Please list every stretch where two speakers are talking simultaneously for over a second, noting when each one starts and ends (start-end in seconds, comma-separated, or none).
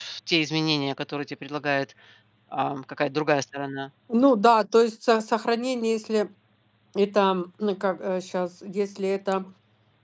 none